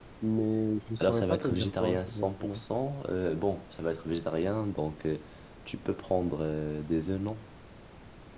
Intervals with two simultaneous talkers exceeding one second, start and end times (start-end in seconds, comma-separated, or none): 1.0-2.6